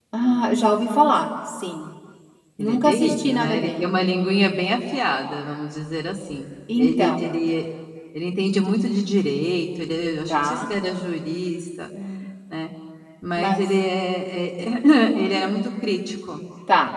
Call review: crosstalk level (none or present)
present